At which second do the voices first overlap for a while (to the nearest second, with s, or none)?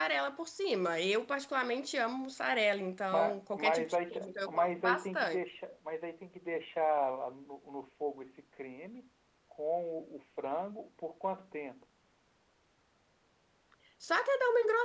3 s